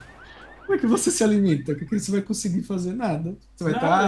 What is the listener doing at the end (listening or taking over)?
listening